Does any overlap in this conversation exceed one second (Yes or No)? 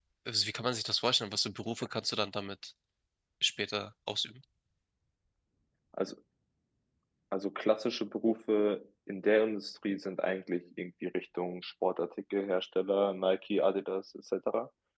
No